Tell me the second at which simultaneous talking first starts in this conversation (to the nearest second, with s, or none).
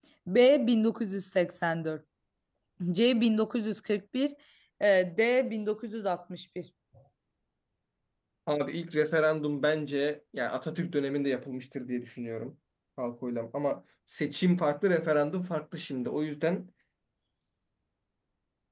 none